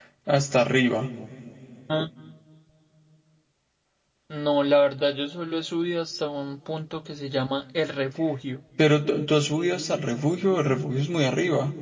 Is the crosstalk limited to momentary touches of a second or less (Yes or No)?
Yes